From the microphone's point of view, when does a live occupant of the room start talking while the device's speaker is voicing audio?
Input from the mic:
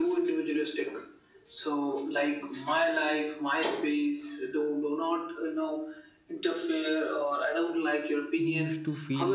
8.4 s

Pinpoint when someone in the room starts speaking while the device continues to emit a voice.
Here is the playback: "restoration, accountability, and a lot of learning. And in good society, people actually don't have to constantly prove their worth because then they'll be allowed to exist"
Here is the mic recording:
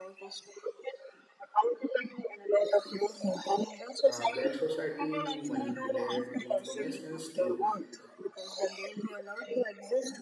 4.0 s

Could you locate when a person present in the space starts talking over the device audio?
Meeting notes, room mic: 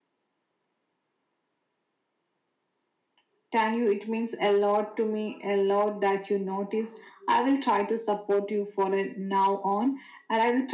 none

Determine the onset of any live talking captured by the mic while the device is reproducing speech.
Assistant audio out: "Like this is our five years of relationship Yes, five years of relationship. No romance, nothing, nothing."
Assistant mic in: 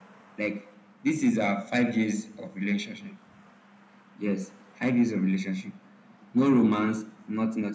none

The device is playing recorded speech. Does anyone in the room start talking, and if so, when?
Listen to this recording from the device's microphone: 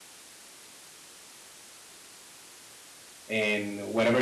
3.3 s

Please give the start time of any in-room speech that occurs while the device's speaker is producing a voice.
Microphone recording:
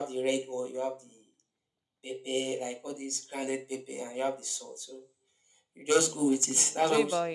6.4 s

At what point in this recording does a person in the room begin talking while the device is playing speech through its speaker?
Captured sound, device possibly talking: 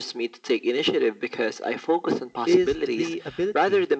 2.4 s

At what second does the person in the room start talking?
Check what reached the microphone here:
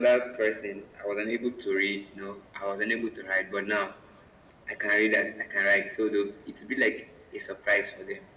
none

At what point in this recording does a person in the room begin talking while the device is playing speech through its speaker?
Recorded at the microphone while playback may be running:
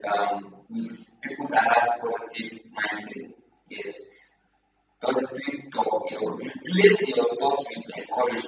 none

